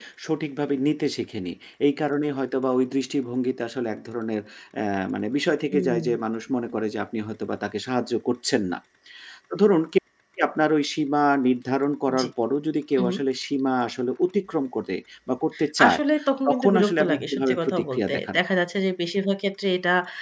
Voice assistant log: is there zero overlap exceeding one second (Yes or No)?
No